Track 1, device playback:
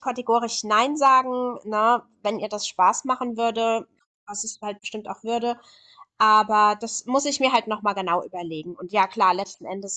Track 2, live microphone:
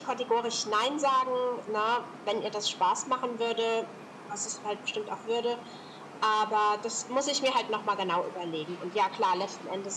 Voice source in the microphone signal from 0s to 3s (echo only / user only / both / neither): echo only